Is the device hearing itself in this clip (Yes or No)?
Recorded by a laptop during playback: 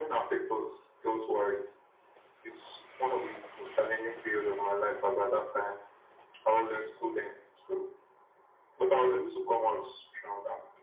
Yes